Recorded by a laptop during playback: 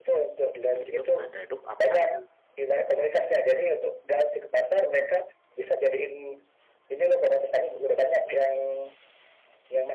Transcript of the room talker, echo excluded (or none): "iDrop, ada iDrop apa?"